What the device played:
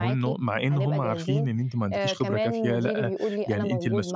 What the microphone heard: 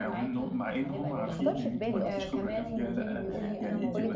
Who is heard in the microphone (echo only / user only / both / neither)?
both